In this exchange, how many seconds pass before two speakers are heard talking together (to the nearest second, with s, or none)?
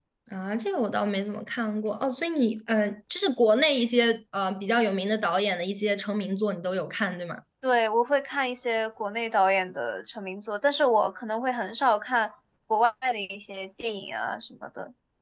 none